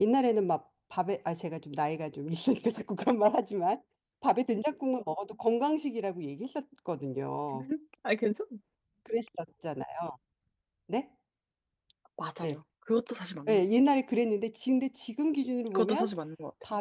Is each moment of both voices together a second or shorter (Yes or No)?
Yes